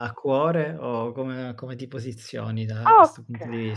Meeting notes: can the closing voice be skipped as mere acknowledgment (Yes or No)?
No